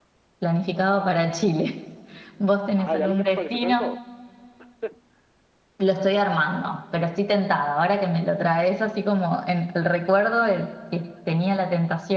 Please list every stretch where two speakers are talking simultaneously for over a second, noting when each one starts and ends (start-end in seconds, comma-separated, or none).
2.8-4.0